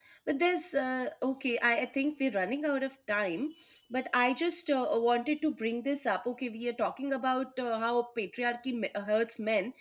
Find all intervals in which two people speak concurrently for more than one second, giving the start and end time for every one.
none

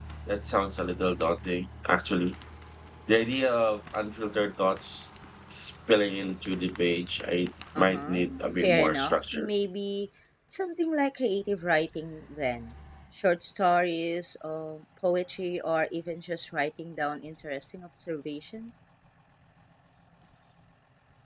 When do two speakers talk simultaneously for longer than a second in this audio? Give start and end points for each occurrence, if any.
7.8-9.5

